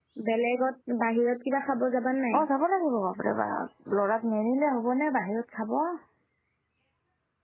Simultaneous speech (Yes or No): No